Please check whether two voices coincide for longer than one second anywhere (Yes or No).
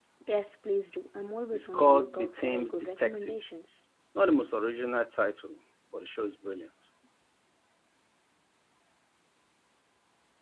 Yes